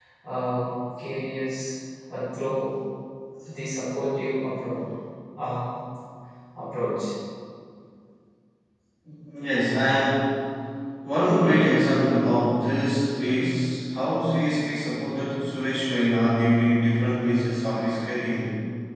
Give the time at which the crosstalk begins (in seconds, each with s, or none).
none